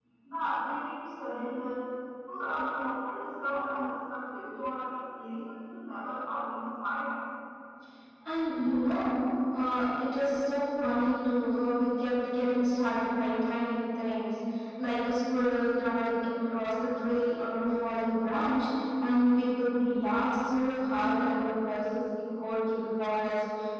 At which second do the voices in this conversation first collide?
none

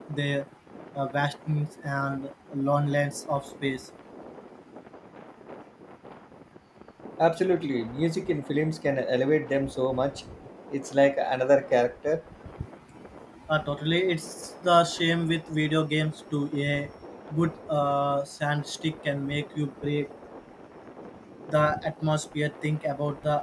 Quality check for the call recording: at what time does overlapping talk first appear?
none

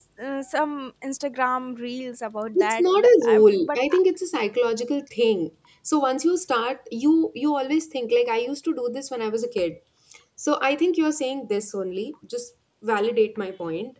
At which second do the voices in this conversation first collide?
2.5 s

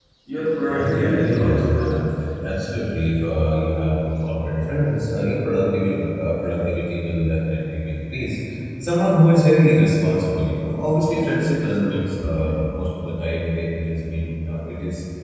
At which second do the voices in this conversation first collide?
0.7 s

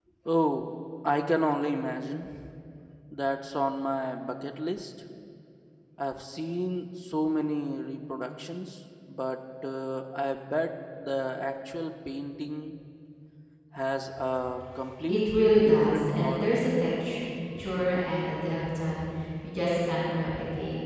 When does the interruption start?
15.1 s

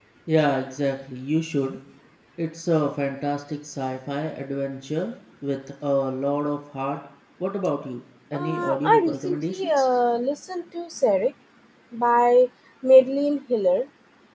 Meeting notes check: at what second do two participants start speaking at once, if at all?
8.3 s

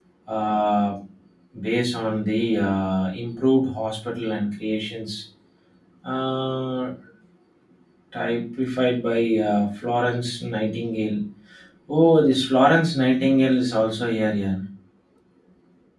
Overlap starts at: none

